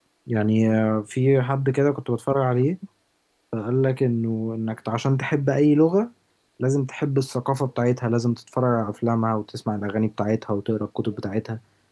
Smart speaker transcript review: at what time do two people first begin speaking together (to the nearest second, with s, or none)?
none